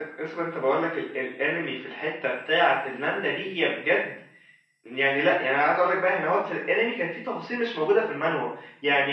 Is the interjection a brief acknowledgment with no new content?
Yes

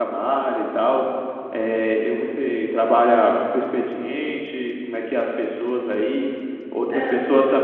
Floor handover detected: No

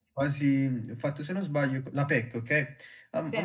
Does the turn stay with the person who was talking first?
Yes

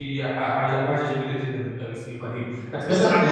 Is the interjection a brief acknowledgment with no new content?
No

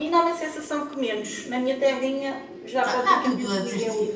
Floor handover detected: Yes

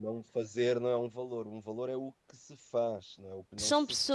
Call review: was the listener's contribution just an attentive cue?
No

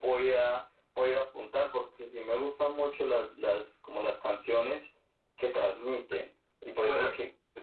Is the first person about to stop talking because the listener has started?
No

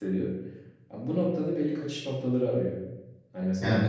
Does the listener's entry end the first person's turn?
No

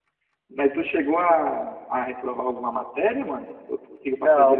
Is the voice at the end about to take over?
Yes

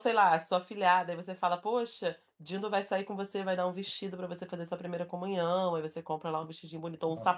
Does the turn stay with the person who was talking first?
Yes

